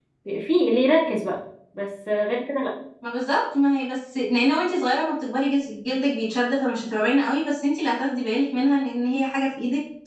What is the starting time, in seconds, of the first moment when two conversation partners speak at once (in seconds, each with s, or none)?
none